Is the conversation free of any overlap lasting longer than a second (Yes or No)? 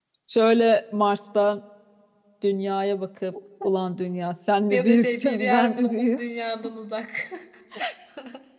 No